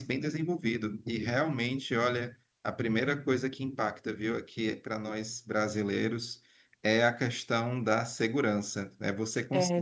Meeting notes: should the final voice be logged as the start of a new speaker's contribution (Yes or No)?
No